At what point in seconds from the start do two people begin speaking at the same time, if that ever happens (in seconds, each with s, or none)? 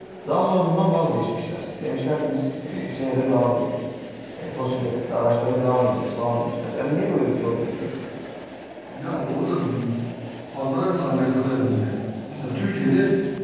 none